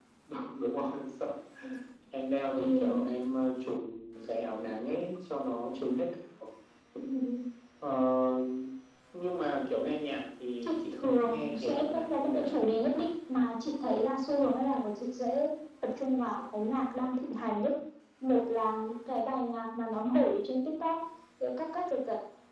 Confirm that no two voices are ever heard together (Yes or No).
No